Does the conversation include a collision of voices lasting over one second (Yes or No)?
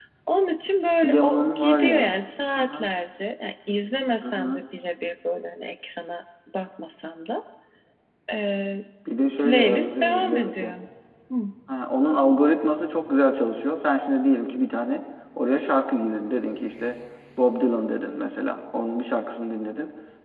Yes